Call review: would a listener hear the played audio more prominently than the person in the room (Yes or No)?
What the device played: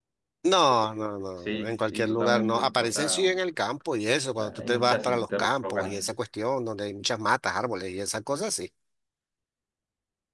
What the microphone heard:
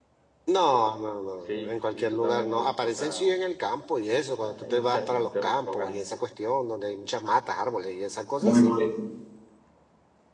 No